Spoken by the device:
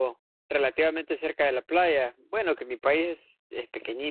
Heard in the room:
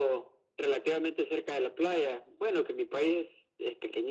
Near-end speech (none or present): none